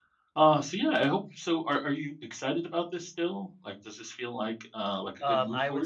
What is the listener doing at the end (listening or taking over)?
taking over